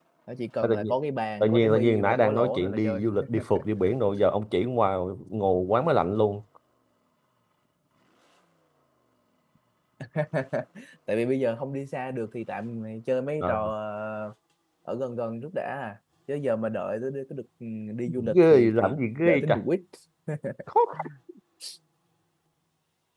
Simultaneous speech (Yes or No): Yes